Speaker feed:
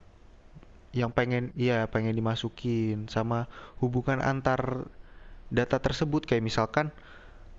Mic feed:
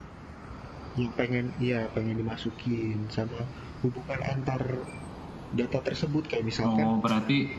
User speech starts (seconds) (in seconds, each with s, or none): 6.6 s